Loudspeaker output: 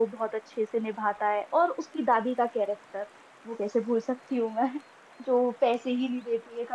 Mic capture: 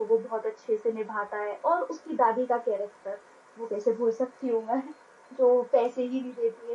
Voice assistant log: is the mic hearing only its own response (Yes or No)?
Yes